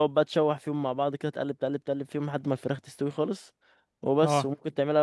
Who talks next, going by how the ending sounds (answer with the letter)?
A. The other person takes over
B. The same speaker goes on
B